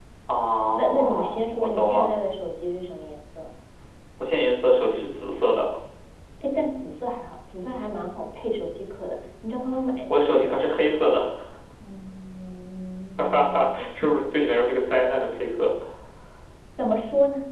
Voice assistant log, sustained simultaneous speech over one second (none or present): present